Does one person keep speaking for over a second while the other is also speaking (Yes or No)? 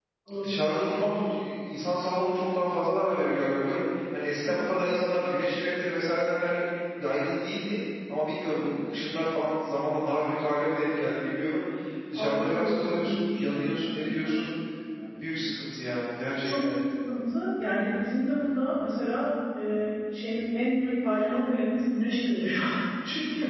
Yes